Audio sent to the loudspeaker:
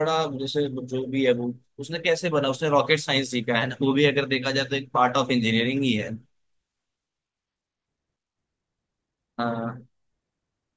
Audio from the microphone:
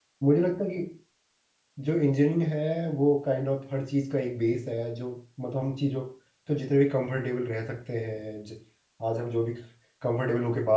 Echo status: none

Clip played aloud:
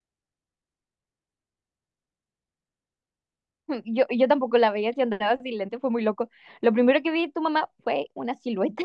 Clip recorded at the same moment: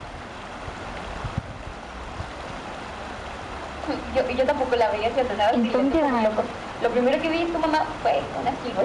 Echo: present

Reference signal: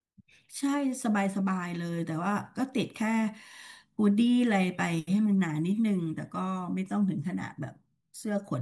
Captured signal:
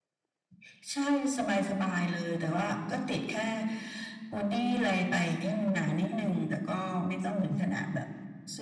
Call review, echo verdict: present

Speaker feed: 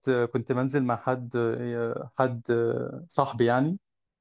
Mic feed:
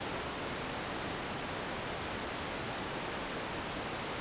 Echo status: none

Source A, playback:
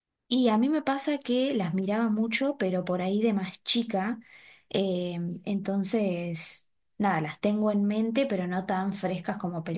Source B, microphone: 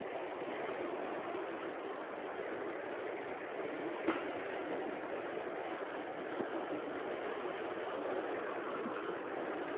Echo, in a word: none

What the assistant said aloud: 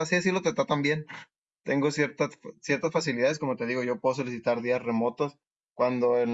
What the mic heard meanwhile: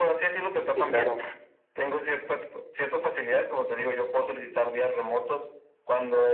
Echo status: present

